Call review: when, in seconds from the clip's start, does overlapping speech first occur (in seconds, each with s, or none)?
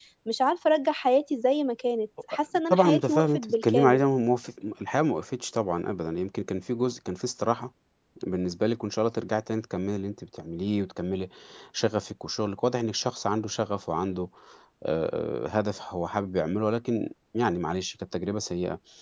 2.7 s